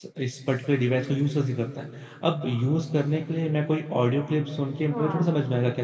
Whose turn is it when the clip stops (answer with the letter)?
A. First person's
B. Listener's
A